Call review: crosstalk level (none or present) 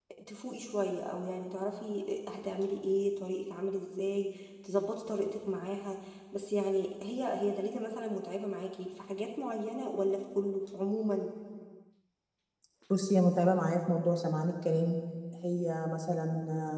none